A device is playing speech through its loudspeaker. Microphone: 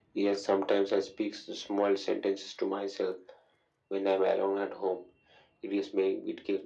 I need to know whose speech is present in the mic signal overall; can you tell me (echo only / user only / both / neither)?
echo only